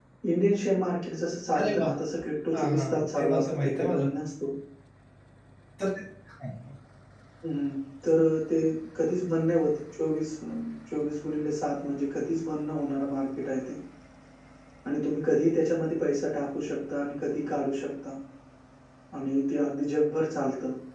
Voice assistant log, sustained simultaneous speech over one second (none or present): present